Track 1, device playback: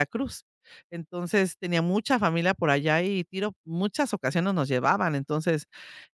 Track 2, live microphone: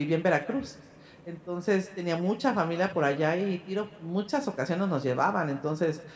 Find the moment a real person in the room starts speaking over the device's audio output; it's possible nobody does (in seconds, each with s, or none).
none